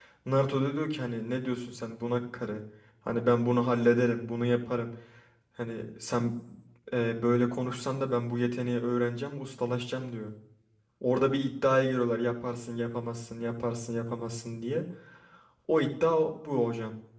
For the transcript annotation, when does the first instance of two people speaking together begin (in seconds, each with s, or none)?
none